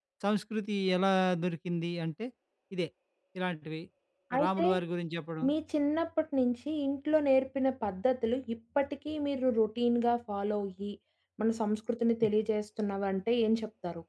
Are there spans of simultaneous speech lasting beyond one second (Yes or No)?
No